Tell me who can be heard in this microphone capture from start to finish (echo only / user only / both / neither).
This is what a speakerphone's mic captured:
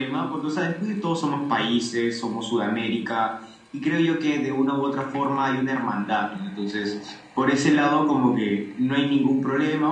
echo only